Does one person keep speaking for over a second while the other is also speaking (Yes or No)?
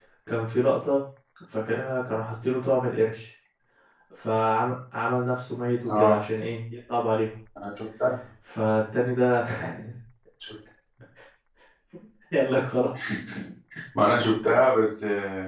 No